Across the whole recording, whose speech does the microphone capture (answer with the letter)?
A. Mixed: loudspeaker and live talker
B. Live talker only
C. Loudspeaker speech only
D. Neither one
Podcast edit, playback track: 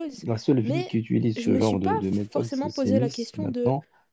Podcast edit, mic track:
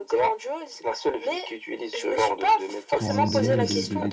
A